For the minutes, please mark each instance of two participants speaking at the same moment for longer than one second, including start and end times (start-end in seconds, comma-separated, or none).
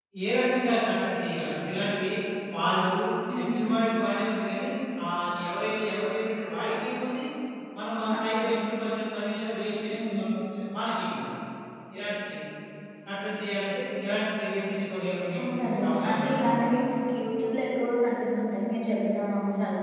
15.5-16.7